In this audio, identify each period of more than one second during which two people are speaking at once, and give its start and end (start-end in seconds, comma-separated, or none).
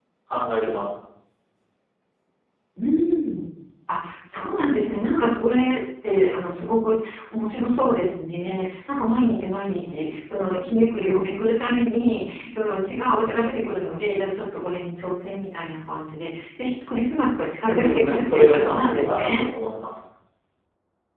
17.7-19.4